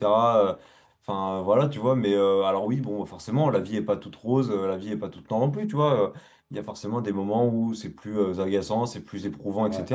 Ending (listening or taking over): listening